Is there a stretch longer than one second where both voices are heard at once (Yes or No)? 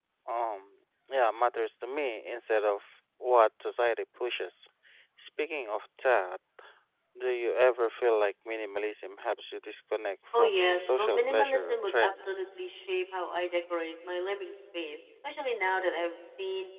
Yes